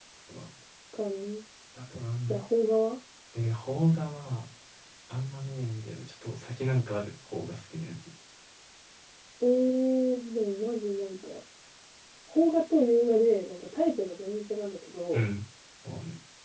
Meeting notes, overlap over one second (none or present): none